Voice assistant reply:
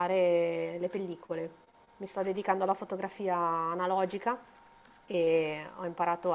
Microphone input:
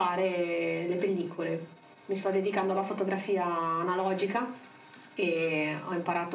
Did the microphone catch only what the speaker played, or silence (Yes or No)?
Yes